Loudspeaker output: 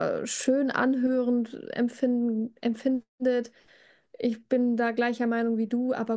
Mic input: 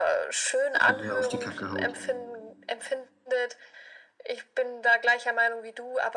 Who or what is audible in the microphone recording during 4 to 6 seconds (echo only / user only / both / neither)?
echo only